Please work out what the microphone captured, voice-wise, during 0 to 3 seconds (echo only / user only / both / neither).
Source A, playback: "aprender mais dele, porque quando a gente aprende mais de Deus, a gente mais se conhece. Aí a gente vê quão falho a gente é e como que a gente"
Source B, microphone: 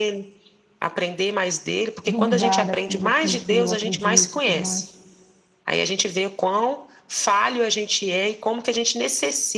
both